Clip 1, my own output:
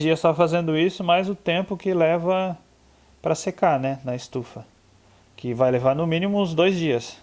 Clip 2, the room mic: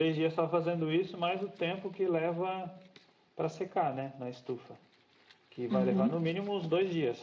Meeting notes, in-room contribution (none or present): present